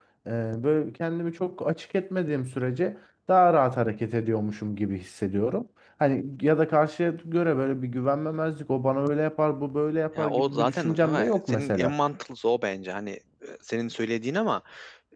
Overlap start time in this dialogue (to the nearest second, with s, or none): 10 s